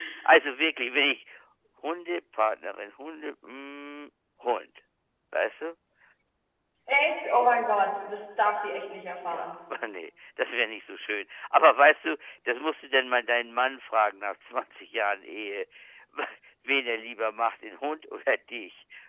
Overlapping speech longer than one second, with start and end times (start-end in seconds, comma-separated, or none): none